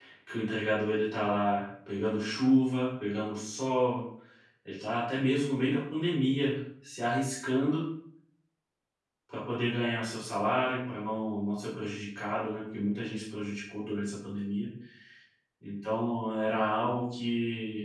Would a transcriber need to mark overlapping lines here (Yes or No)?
No